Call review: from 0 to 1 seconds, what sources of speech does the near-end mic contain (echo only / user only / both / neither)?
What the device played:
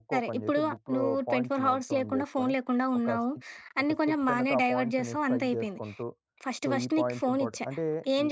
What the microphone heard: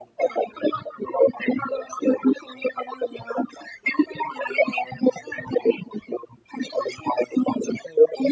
echo only